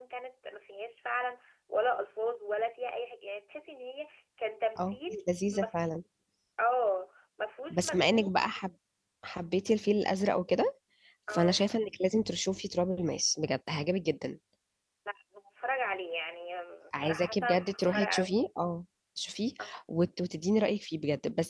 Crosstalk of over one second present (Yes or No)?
Yes